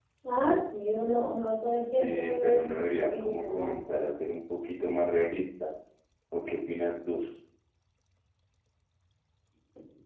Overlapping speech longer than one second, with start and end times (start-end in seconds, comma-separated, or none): 2.0-3.8